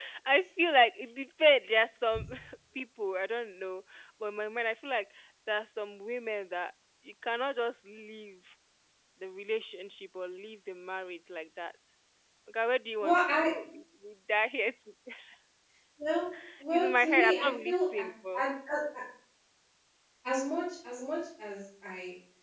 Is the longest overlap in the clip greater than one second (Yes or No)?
Yes